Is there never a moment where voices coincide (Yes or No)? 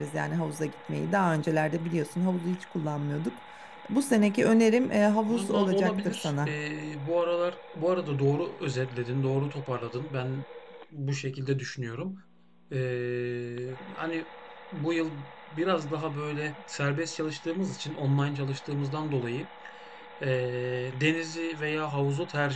No